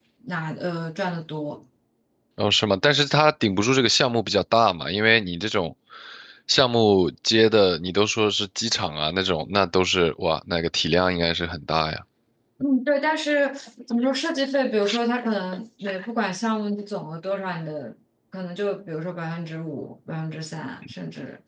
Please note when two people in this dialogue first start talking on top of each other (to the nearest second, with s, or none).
none